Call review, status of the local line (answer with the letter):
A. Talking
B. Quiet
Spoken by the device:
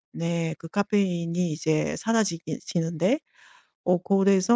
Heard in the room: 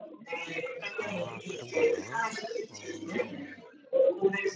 A